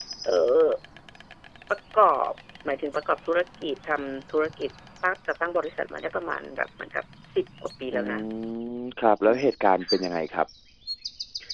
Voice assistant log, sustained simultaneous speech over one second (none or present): none